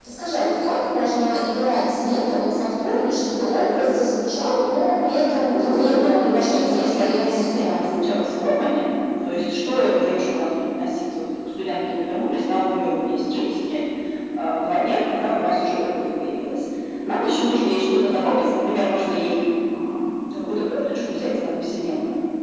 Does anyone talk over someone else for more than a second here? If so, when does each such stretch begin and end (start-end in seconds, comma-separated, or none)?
5.5-7.9